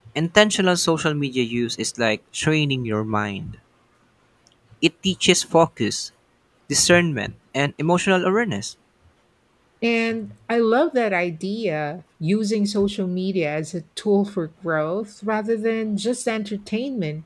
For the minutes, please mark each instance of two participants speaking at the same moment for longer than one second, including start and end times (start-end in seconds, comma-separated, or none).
none